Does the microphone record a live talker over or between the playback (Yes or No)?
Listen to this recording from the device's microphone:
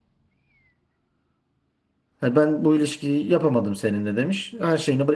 Yes